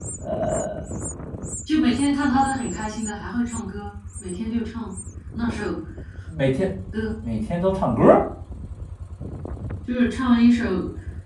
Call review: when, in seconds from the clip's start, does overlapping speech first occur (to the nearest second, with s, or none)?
none